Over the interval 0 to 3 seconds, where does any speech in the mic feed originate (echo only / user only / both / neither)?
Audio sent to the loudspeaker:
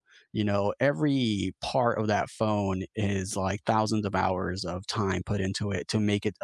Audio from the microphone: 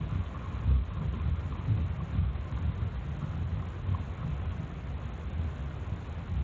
neither